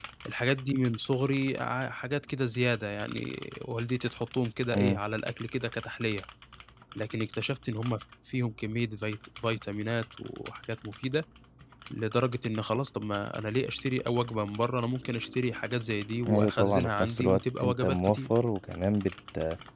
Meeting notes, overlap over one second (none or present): present